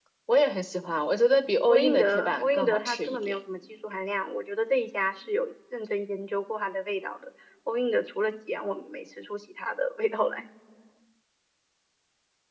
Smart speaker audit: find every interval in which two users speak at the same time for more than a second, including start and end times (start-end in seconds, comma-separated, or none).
1.7-3.4